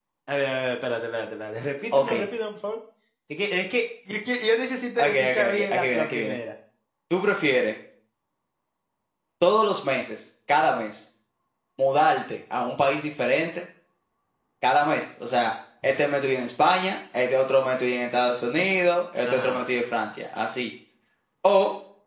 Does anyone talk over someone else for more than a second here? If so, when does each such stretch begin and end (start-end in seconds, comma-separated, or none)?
5.0-6.4